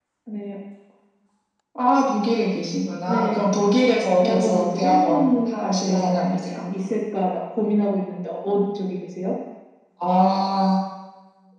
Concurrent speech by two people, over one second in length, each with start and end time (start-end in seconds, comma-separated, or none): 4.2-6.5